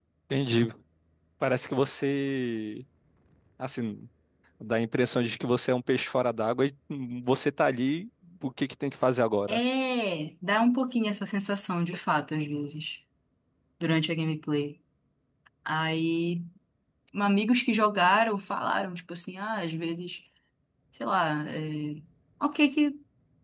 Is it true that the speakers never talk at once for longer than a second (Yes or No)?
Yes